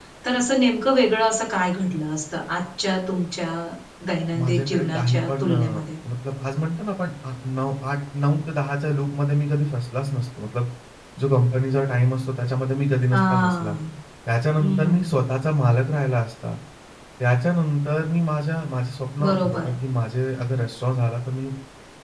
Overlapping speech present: Yes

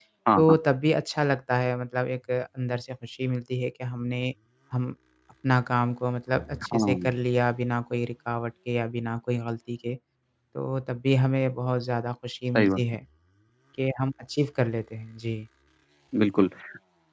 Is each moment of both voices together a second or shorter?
Yes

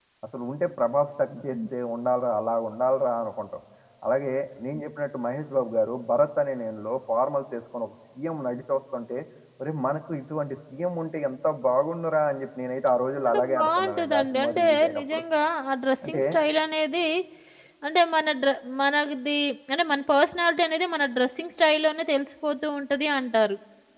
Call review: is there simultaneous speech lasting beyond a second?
Yes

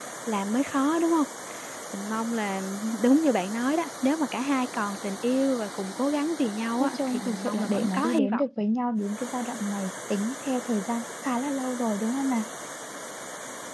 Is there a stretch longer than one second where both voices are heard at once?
Yes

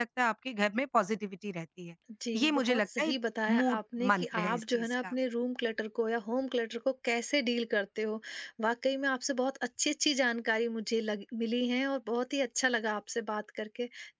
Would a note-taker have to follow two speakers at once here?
Yes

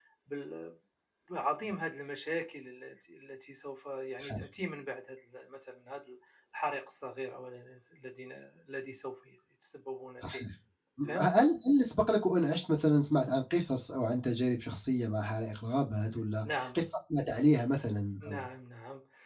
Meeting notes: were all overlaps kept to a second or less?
Yes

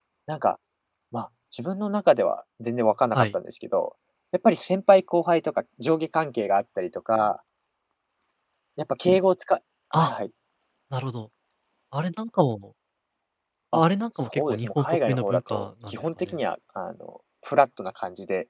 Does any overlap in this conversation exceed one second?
Yes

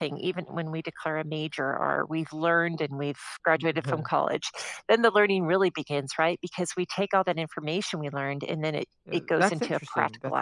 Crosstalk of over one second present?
Yes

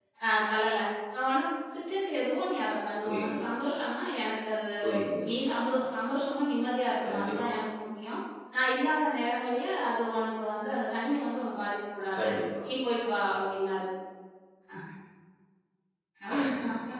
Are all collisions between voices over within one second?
Yes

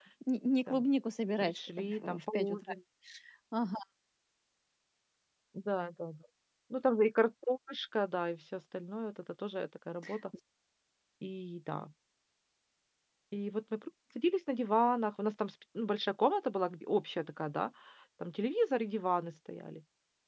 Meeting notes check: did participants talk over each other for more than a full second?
Yes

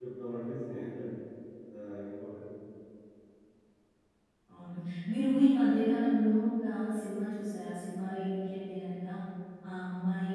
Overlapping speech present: No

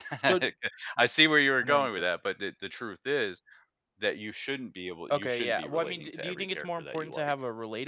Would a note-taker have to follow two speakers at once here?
Yes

